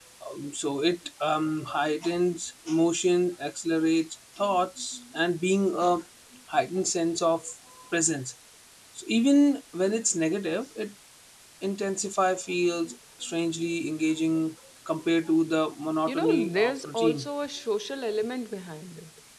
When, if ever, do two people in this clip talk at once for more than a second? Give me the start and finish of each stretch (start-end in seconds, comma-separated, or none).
16.1-17.3